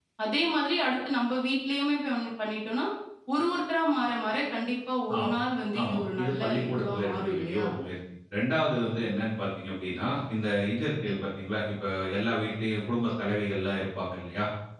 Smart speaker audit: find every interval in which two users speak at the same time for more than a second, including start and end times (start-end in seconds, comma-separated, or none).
5.8-7.7